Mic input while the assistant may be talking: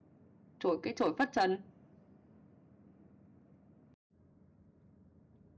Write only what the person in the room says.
chổi cái chổi phất trần.

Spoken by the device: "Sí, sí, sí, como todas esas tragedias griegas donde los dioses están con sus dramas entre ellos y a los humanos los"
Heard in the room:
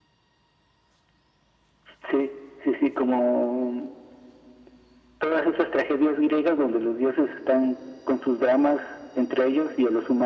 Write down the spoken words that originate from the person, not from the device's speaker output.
none

